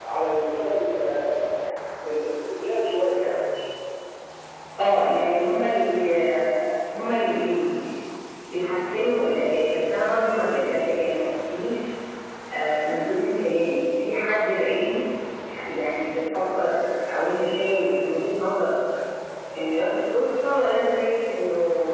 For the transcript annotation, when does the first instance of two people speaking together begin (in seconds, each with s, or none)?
none